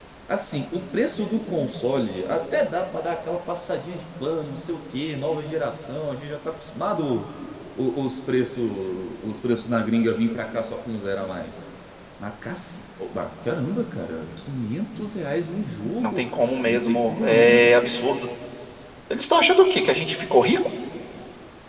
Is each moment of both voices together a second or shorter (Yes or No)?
No